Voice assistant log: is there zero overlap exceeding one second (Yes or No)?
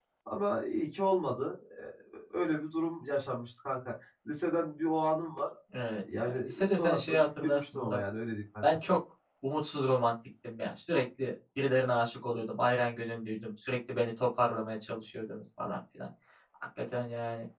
No